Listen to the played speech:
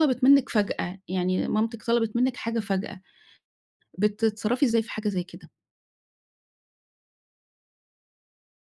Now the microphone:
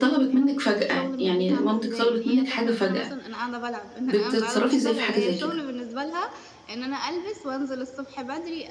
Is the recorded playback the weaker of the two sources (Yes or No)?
No